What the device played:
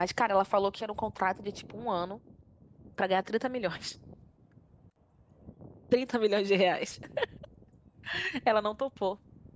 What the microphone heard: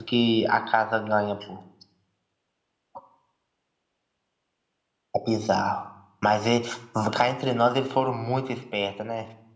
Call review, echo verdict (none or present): none